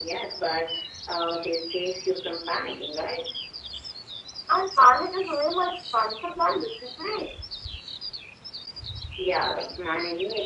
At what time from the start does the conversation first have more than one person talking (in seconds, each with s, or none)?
none